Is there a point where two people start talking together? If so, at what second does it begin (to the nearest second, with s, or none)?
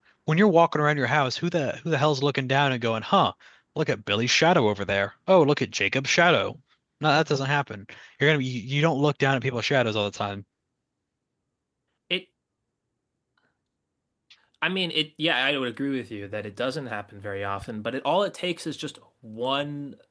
none